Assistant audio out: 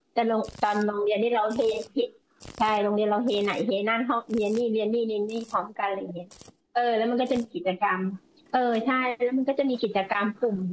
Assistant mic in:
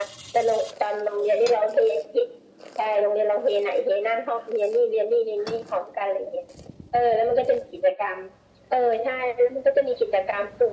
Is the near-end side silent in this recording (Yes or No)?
Yes